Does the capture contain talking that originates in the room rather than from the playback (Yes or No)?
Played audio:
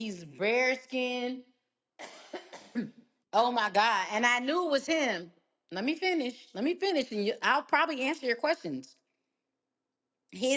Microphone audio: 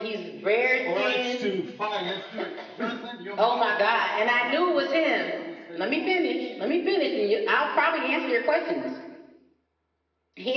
Yes